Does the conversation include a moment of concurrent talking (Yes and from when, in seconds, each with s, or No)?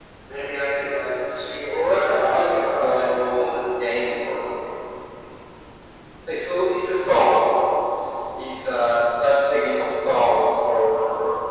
Yes, from 1.6 s